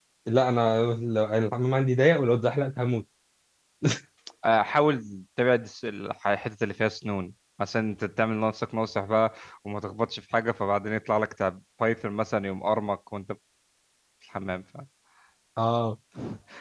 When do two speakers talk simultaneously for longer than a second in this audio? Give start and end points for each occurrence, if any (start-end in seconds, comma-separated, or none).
none